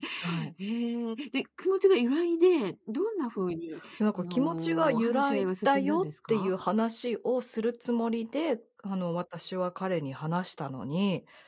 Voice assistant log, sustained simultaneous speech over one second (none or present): present